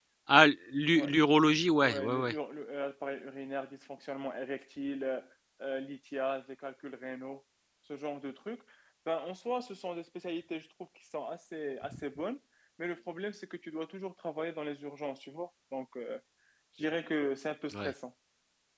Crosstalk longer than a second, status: none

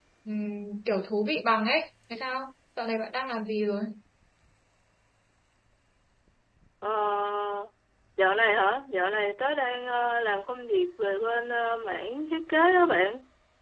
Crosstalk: none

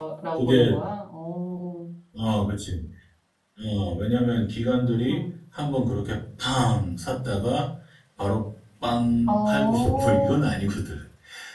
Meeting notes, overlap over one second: present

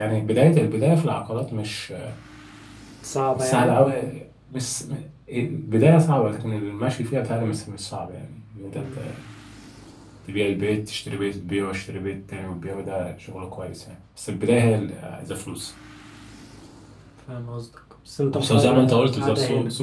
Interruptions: present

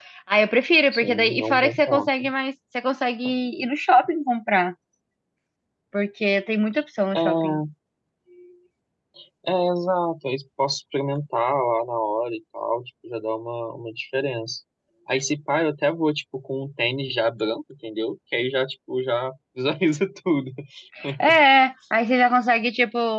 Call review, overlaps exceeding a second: present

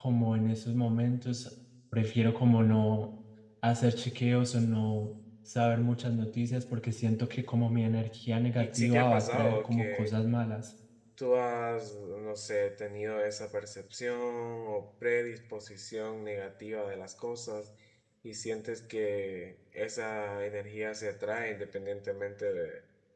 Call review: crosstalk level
present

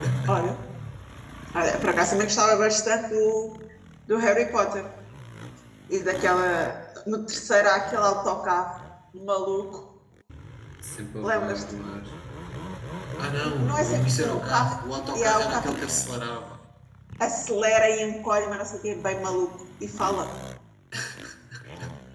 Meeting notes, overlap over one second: present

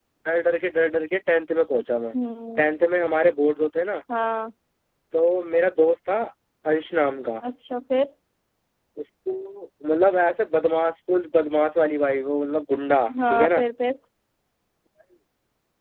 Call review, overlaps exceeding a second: none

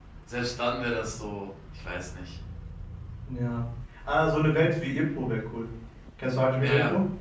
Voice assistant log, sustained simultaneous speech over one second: none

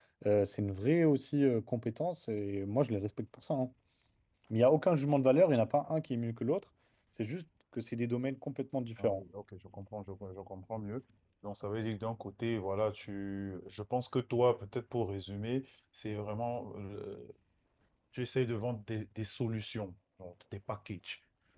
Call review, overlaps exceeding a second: none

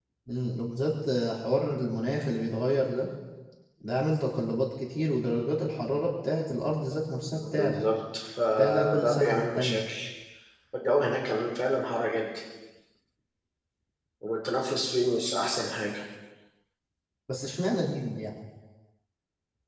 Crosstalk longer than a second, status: present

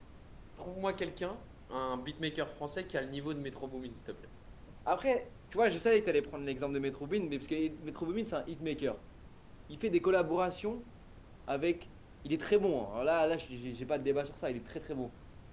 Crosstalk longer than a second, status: none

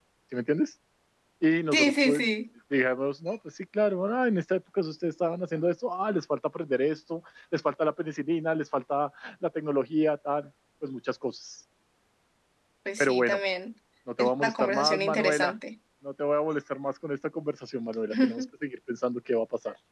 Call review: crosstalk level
present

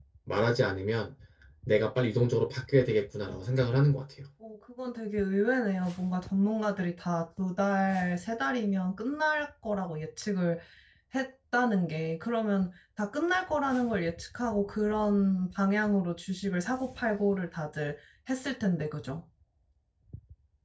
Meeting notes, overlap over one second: none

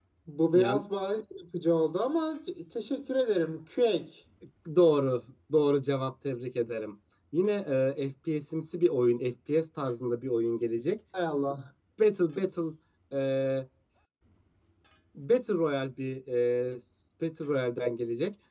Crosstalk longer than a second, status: none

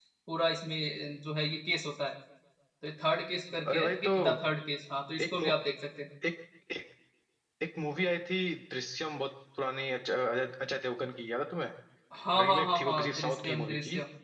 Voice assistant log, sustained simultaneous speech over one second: present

